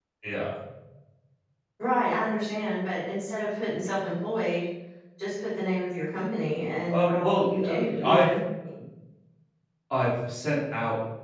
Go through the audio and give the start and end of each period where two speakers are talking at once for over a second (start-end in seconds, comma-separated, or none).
6.9-8.3